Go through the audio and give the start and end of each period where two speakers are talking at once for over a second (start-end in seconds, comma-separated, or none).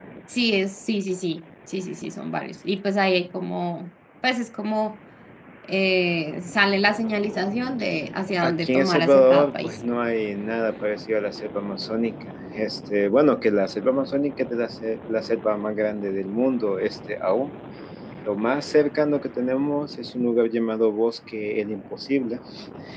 8.4-9.8